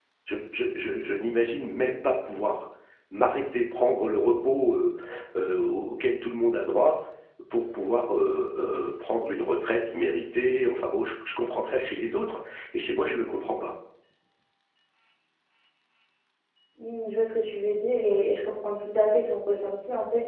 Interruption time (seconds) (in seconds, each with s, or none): none